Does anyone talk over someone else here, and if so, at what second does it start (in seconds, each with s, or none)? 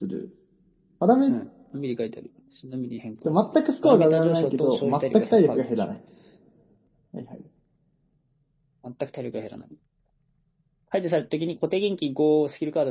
3.2 s